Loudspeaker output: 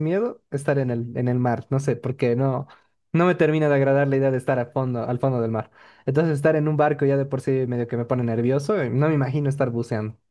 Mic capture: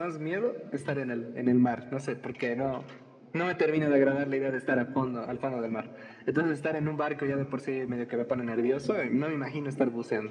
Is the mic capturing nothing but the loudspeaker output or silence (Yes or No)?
Yes